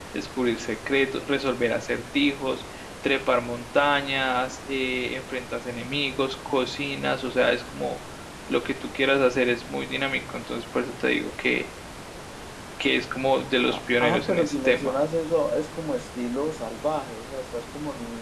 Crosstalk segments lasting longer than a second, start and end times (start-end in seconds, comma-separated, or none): 13.7-15.0